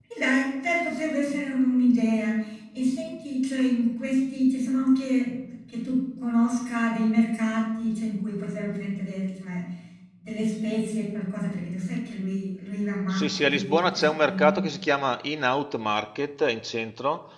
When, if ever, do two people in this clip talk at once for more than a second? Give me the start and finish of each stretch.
13.1-14.6

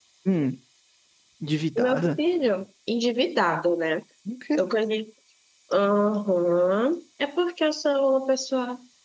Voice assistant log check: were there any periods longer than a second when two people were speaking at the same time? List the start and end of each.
none

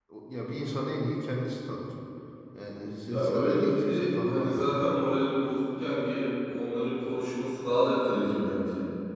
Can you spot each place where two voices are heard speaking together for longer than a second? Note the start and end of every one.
3.1-4.9

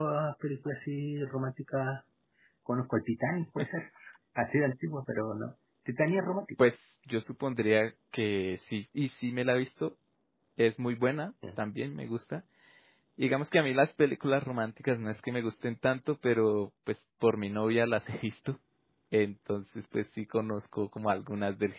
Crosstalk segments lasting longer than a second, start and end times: none

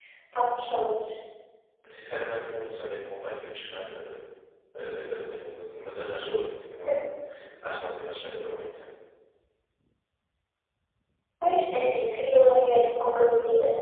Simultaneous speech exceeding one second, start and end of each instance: none

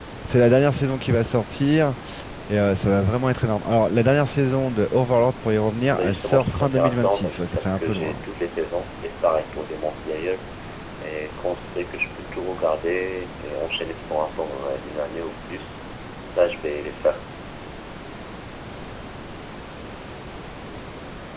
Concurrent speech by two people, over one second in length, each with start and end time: 5.9-8.2

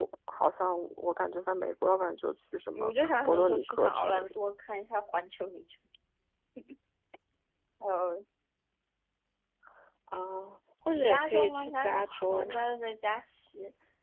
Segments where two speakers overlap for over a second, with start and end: 2.9-4.4, 10.9-12.6

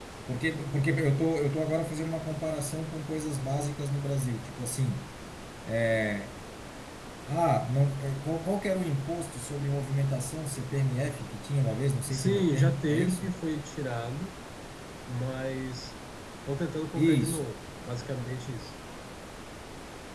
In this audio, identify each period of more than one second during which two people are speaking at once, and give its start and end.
12.1-13.3

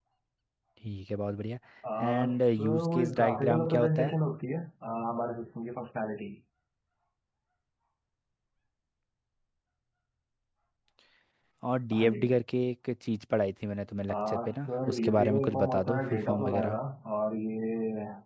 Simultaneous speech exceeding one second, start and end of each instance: 2.0-4.2, 14.1-16.8

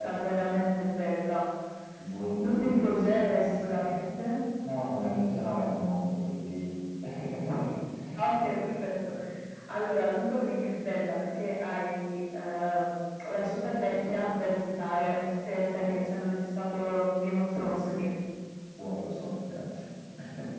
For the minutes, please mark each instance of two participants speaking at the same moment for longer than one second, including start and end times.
2.3-4.0

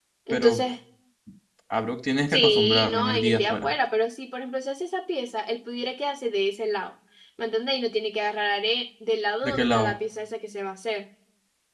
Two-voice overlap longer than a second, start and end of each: 2.3-3.7

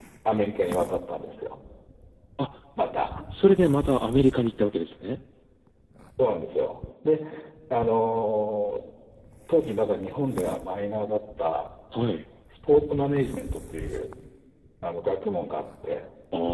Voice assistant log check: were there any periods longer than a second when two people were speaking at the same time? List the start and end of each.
none

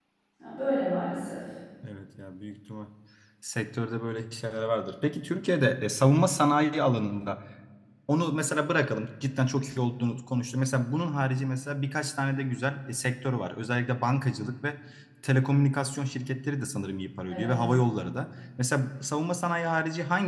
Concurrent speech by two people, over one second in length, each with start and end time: none

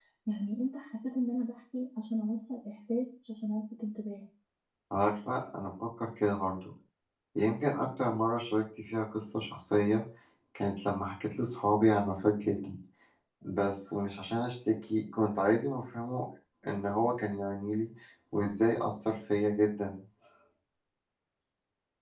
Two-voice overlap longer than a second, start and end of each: none

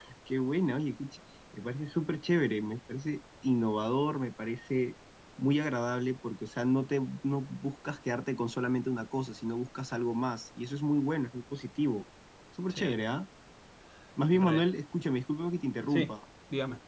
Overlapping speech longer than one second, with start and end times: none

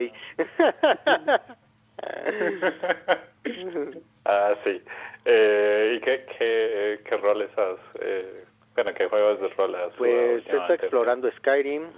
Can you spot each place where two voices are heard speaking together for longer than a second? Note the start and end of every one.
10.0-11.2

